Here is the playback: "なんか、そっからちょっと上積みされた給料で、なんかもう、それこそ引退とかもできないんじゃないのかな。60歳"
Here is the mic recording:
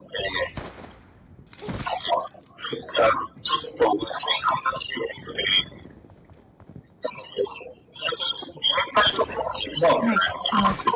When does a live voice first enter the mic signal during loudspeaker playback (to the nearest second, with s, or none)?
10 s